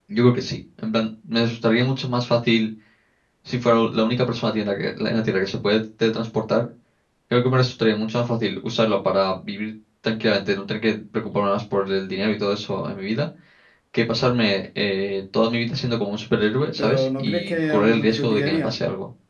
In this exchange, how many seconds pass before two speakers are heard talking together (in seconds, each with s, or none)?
16.8 s